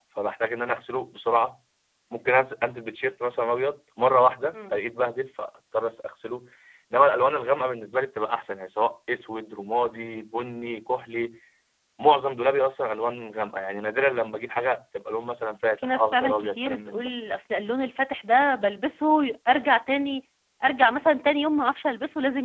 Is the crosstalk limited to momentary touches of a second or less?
No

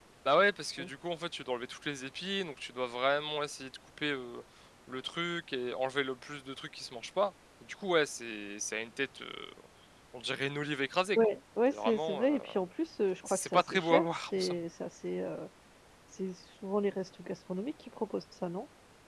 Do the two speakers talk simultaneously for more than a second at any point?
Yes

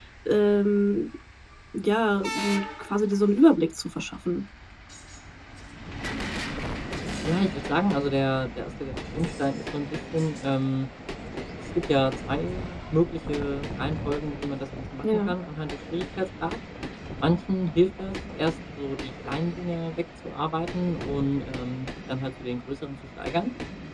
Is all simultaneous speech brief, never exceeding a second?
Yes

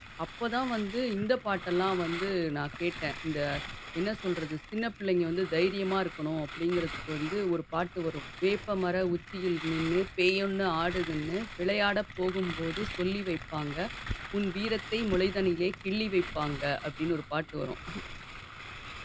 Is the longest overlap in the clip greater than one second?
No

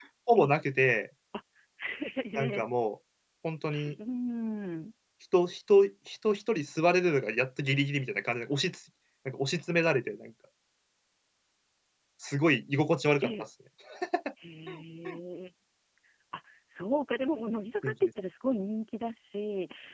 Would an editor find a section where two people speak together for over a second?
No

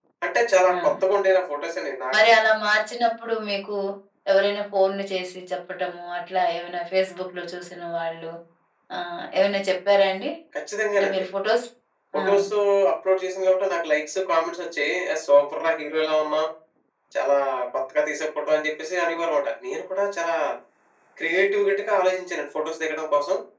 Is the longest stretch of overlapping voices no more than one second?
Yes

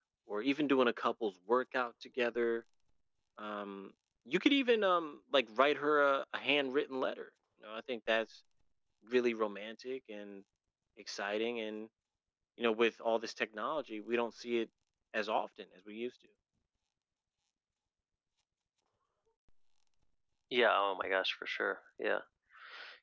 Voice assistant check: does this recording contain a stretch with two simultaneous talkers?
No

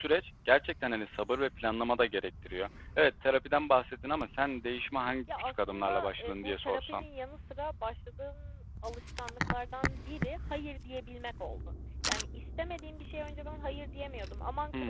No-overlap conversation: No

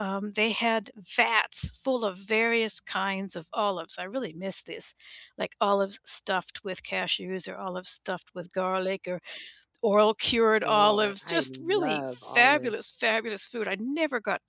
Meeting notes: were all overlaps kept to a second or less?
No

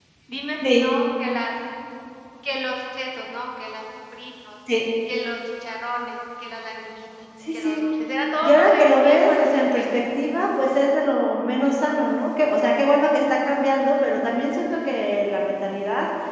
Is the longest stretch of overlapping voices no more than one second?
No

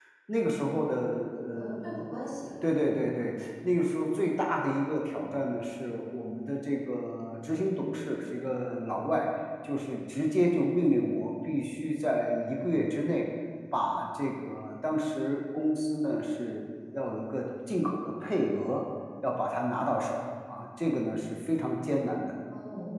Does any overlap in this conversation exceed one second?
No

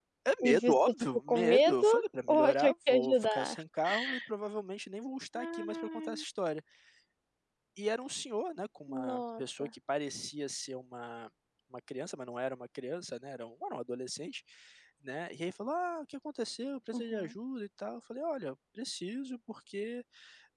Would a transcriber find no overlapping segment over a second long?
No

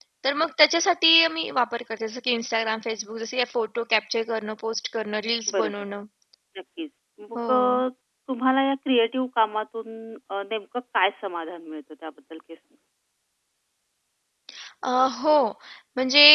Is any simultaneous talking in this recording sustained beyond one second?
No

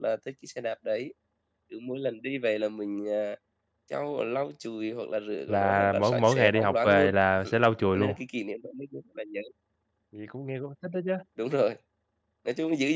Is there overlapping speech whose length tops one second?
Yes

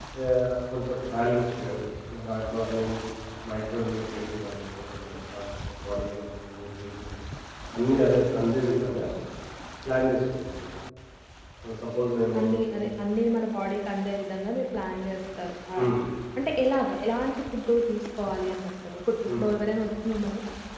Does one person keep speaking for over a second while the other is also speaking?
No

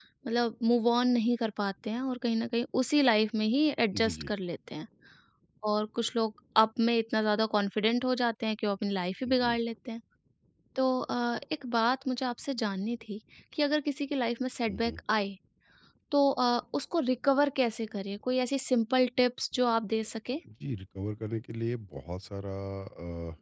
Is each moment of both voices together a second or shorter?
Yes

